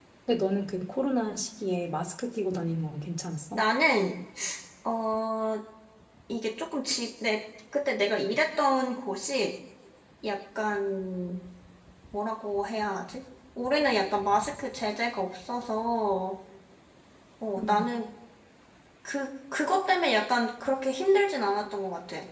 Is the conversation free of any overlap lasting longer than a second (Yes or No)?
Yes